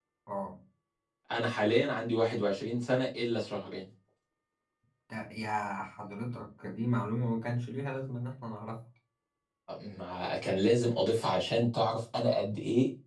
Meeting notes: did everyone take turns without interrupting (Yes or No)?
Yes